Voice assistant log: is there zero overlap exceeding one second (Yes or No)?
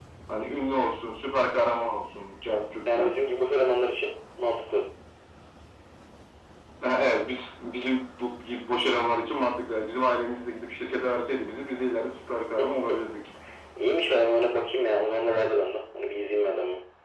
Yes